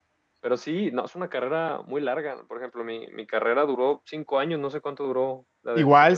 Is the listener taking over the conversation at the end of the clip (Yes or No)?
Yes